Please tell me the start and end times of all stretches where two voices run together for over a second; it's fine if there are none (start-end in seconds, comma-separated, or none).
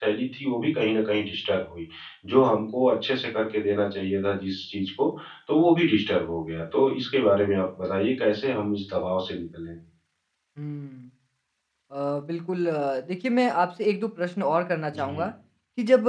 none